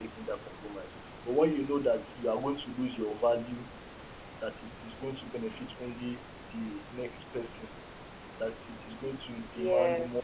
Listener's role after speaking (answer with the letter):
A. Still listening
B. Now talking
B